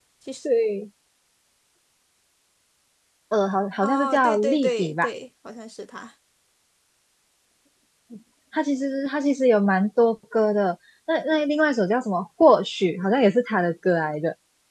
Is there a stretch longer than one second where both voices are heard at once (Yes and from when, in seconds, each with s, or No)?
Yes, from 3.8 s